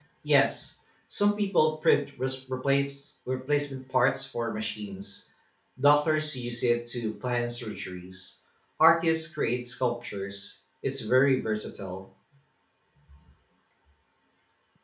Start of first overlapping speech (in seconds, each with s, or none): none